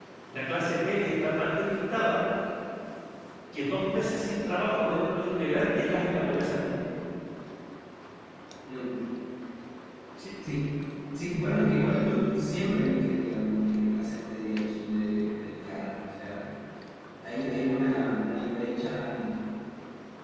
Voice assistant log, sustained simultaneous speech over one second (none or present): none